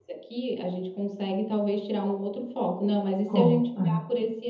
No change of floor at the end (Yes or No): Yes